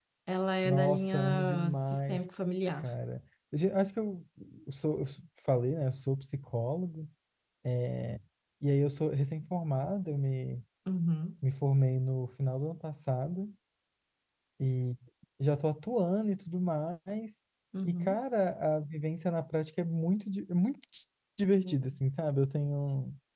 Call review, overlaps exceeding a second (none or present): present